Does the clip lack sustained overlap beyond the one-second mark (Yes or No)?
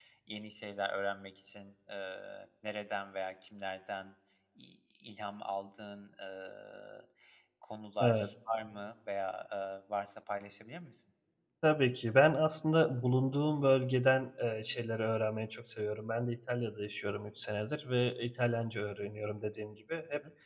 Yes